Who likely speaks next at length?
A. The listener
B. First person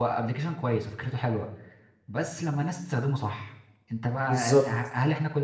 B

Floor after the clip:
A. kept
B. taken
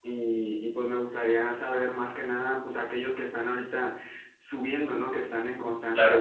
A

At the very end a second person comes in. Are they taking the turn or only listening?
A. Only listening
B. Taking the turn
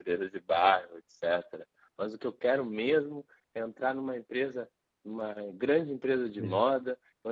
A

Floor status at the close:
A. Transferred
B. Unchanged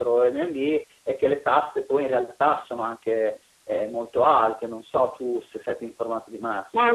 A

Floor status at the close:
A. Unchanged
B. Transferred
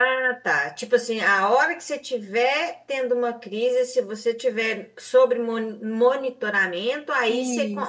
A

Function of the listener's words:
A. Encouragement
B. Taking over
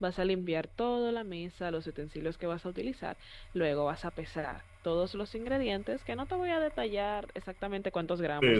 B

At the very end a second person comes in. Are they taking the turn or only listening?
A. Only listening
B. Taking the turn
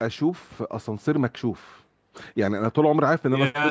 A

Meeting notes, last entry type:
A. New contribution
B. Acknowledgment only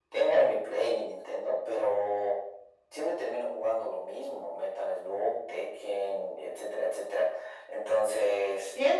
A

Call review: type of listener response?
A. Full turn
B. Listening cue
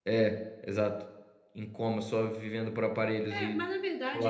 A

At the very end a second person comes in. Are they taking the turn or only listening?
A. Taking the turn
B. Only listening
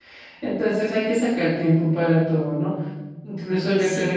B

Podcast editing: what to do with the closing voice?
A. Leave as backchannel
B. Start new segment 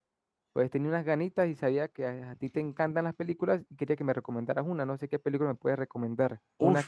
B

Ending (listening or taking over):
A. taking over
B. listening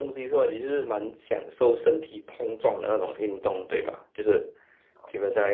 B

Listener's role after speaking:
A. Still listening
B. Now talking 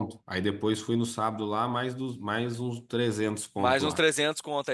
B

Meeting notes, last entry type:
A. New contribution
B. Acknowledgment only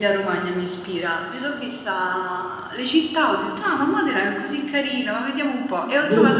B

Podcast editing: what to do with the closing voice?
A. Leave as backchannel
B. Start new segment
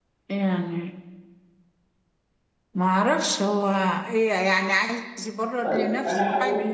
B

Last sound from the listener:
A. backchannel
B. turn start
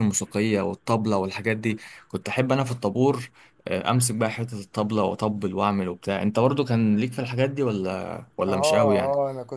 B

